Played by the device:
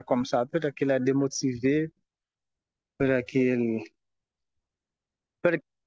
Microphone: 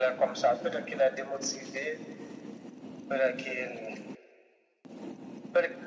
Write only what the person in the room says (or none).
none